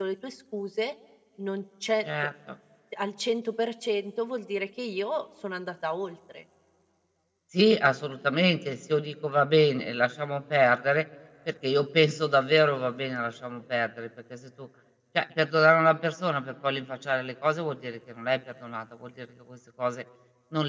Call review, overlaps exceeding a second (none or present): none